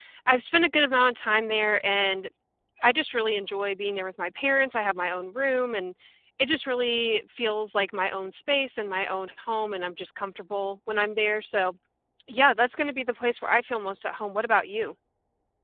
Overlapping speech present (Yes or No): No